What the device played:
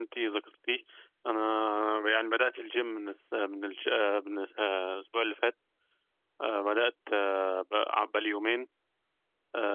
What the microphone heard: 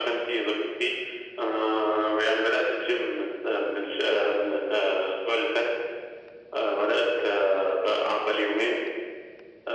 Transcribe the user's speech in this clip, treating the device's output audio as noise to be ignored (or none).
none